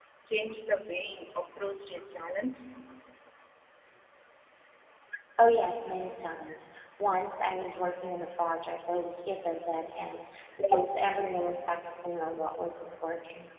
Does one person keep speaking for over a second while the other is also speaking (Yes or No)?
No